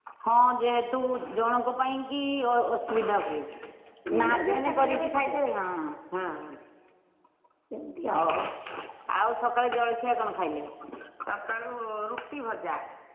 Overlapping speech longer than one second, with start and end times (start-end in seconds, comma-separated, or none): 4.1-5.3